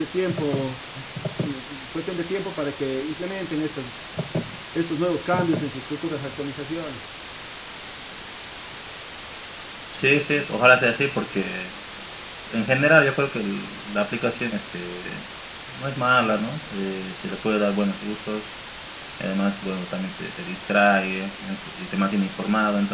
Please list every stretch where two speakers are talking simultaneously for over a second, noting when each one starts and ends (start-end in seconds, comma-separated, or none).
none